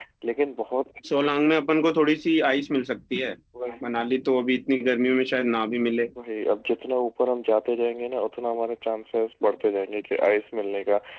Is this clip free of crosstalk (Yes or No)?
Yes